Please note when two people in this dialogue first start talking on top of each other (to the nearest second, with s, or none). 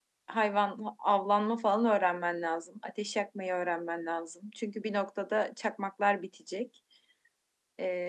none